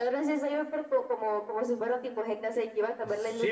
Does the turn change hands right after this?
Yes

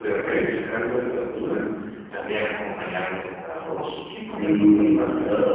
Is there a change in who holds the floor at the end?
Yes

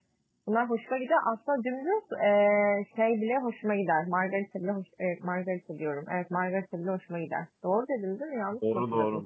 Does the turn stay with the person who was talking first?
No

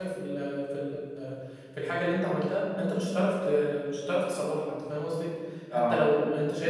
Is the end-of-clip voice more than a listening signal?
No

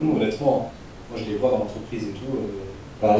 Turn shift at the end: Yes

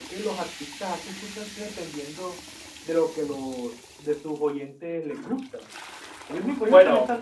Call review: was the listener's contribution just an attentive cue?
No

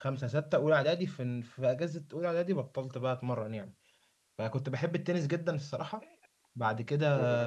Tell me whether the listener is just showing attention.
Yes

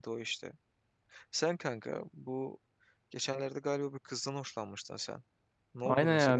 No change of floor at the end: No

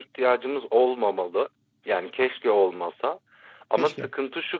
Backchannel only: Yes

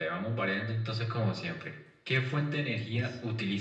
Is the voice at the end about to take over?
No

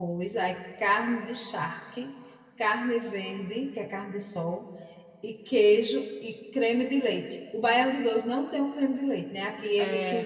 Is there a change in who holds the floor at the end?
No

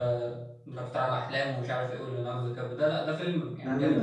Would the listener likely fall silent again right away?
Yes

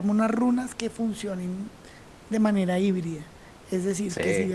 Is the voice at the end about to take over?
No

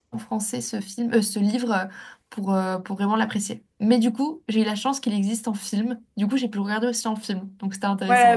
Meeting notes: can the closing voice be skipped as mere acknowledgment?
No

